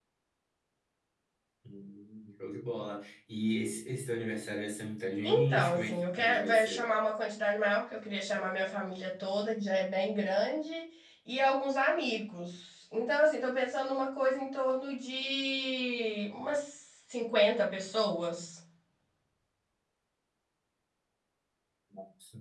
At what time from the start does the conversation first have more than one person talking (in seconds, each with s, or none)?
5.2 s